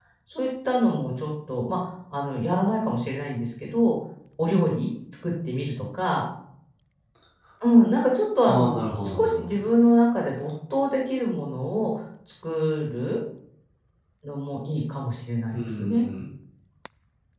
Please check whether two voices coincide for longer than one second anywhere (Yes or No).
No